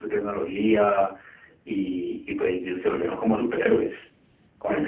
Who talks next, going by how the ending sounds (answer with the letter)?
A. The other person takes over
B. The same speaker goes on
A